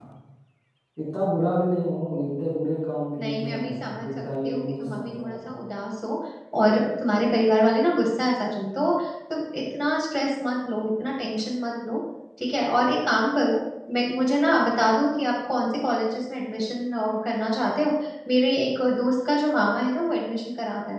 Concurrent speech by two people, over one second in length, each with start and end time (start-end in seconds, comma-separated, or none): 3.2-5.5